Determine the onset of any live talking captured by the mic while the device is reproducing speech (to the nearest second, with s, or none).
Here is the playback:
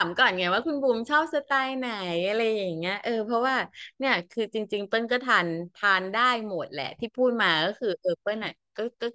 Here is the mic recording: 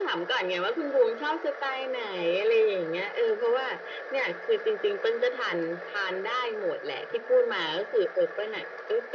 none